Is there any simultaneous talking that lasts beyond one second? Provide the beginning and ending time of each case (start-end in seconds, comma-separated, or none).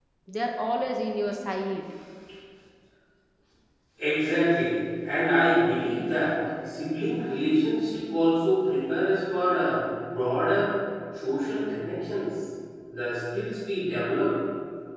none